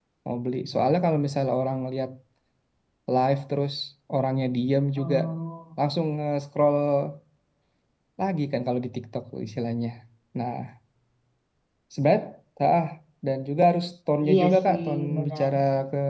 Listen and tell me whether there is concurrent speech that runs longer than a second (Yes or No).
Yes